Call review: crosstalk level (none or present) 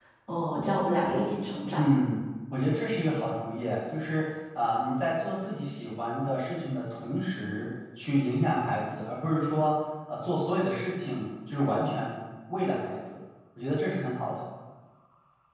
none